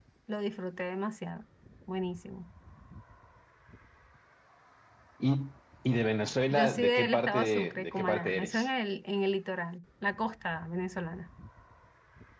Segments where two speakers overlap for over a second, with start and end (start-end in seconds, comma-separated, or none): 6.5-8.7